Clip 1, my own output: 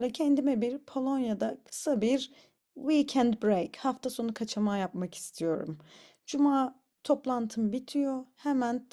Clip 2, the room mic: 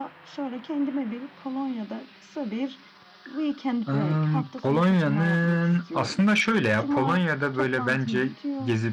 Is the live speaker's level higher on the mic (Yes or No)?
Yes